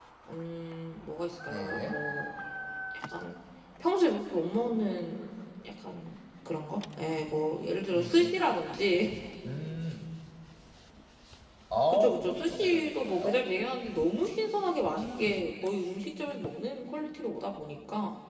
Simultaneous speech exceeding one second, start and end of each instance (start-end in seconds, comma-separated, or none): 11.9-13.4